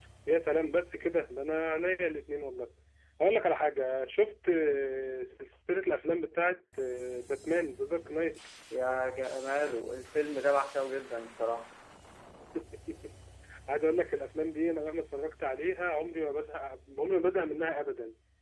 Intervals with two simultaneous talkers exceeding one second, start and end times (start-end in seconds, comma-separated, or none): none